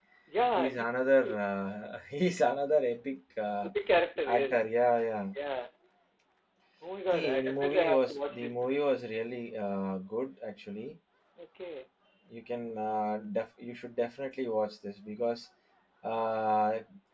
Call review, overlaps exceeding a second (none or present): present